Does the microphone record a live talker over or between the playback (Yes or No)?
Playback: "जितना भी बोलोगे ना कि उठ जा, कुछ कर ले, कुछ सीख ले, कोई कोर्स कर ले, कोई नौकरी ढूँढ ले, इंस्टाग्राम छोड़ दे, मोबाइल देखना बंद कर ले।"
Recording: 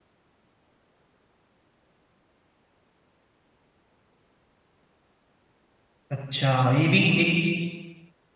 Yes